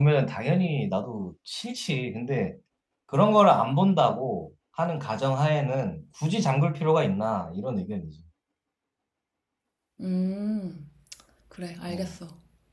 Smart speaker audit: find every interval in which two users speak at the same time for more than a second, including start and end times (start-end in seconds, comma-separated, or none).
none